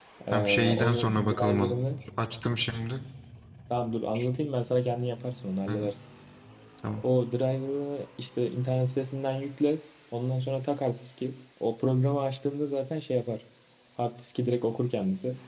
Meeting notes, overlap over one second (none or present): present